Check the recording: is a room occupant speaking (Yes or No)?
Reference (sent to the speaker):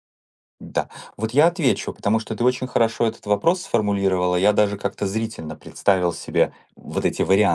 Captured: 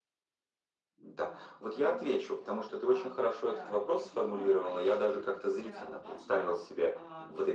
Yes